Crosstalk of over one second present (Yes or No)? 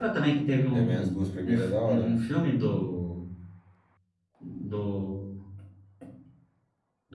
Yes